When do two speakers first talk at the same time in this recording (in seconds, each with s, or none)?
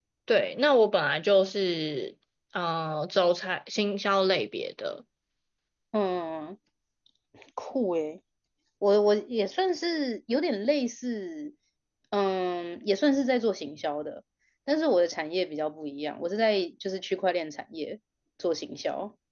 none